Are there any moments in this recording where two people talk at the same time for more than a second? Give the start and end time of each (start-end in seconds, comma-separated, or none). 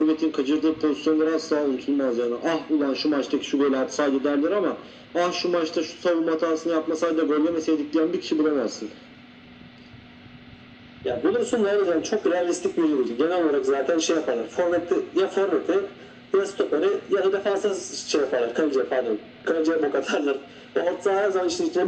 none